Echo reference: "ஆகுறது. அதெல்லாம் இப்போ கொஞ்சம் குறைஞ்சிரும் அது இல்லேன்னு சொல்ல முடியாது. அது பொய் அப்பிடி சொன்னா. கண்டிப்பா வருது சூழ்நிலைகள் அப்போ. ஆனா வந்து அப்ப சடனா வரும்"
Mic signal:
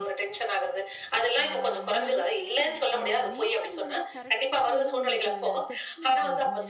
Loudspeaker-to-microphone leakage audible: Yes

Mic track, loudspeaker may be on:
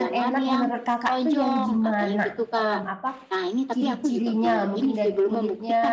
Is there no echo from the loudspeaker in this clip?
No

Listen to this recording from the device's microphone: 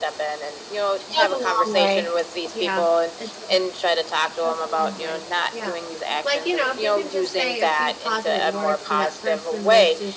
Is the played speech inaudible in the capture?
No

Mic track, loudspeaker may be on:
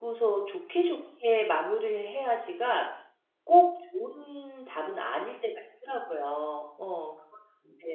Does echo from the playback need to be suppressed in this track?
No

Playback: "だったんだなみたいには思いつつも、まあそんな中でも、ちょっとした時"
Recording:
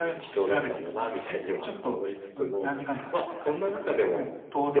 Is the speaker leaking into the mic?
Yes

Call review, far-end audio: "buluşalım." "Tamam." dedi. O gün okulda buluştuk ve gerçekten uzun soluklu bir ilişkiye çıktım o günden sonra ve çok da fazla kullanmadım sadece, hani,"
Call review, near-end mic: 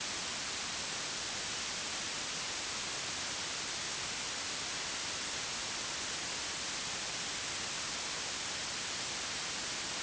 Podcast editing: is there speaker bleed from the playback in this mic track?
No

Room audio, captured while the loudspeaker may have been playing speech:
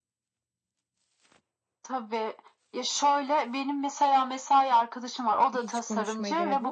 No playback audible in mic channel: No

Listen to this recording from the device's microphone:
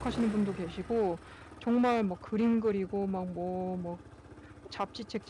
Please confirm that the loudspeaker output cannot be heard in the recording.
Yes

